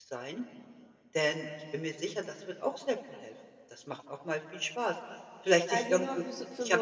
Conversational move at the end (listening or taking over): taking over